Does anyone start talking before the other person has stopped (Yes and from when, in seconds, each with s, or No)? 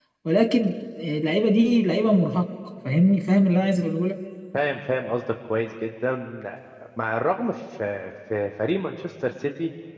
No